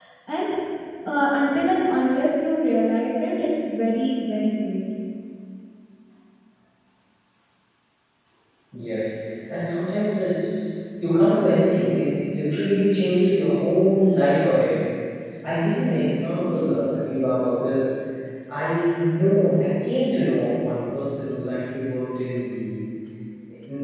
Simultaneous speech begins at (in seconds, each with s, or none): none